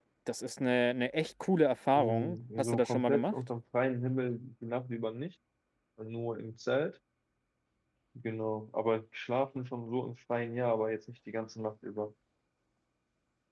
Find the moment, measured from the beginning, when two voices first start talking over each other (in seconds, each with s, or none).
1.9 s